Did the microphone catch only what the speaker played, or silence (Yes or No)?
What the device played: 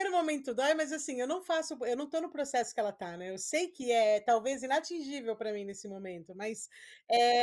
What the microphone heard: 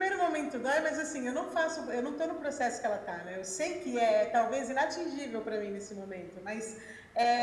Yes